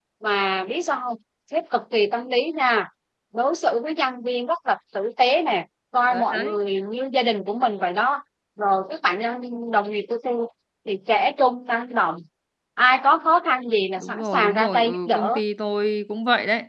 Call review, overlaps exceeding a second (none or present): present